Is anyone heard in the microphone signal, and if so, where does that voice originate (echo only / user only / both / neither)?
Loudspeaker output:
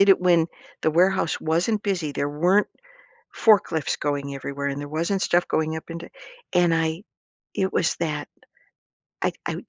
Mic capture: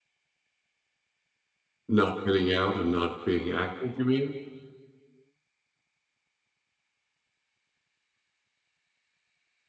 user only